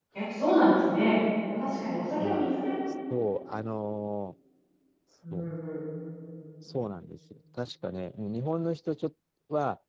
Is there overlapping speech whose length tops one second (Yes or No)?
No